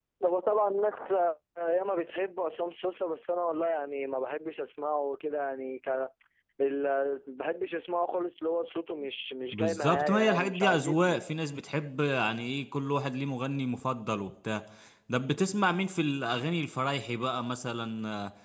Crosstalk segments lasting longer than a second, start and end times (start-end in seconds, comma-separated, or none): 9.5-11.2